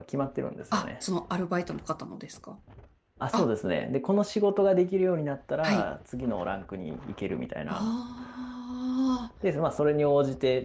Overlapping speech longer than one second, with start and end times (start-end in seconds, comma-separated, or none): none